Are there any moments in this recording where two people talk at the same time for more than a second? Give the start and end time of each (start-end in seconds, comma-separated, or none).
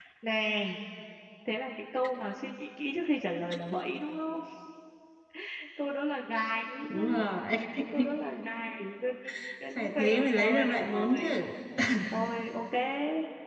9.8-11.3